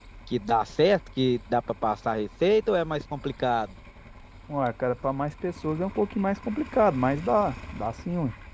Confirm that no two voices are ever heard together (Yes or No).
Yes